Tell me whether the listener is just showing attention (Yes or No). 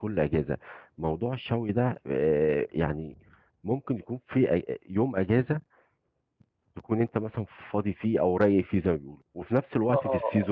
Yes